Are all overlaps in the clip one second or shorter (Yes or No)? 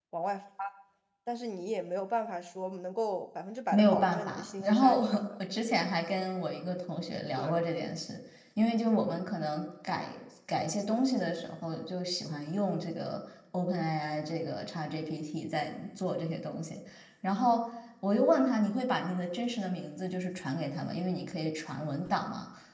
No